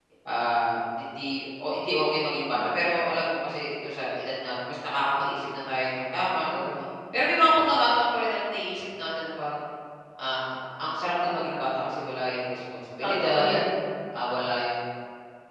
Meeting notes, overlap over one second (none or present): none